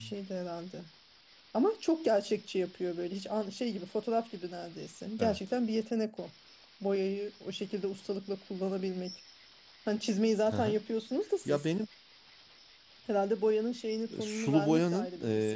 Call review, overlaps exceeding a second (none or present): present